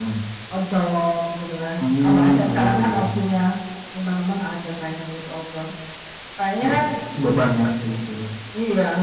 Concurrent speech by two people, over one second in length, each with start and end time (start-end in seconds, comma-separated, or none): 1.8-3.0